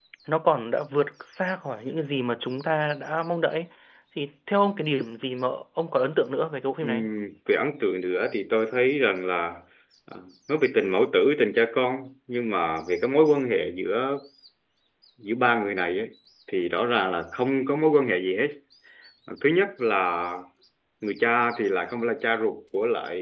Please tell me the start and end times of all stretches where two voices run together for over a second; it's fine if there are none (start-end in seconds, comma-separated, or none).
none